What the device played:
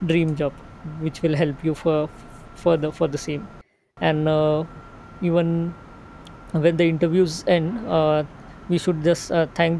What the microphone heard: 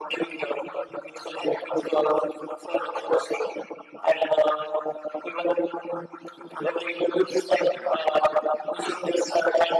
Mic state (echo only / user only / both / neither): echo only